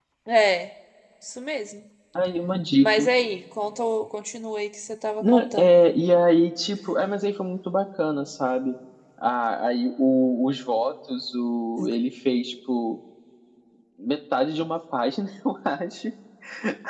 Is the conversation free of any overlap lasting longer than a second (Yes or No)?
Yes